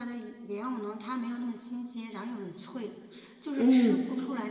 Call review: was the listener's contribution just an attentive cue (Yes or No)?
Yes